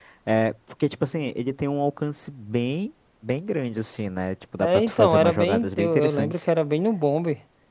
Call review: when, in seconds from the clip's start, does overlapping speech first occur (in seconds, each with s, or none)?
4.6 s